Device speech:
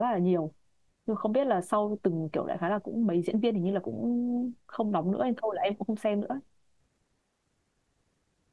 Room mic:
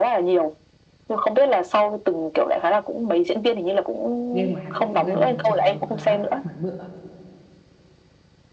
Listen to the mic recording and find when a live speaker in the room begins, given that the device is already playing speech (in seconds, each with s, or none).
4.3 s